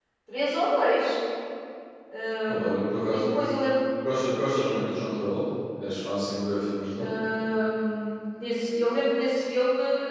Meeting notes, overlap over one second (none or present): none